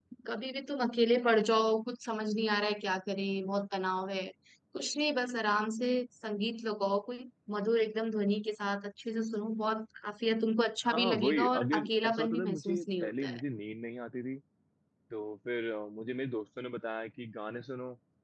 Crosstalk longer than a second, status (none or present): present